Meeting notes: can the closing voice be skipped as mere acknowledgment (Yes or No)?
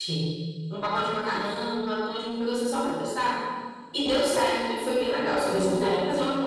Yes